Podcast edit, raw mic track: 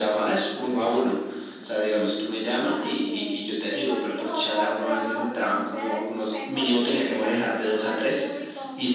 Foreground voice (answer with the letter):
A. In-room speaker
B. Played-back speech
B